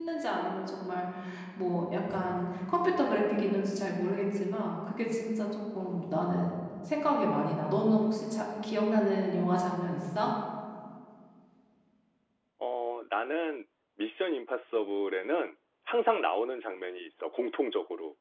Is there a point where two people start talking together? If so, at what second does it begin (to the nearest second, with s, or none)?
none